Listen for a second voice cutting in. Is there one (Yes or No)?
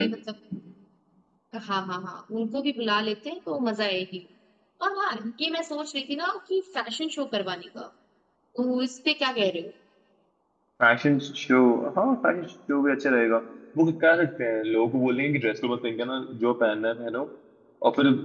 No